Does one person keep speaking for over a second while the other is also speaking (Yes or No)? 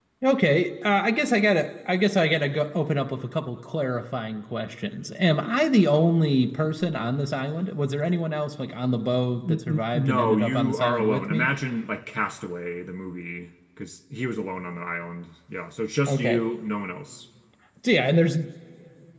Yes